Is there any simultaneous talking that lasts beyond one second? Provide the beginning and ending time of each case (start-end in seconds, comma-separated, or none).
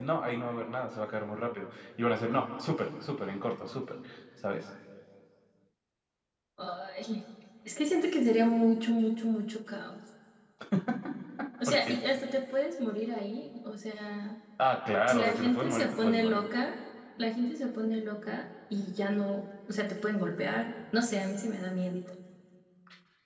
15.1-16.5